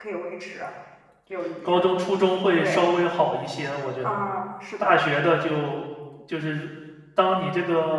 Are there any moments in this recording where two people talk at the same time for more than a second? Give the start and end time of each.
none

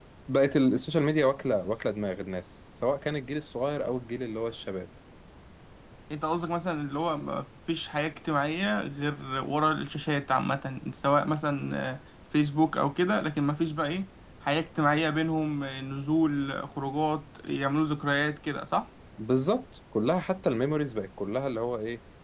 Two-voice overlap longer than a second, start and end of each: none

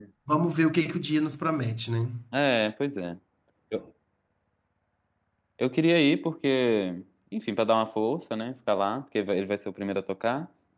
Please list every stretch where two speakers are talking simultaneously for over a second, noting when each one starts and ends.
none

